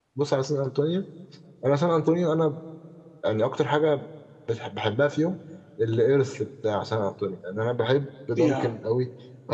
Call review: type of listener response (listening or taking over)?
listening